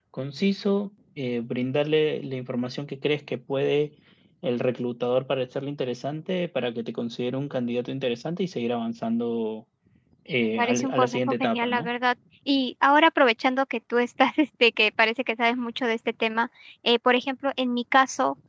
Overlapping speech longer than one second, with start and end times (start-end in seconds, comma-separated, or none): 10.6-11.9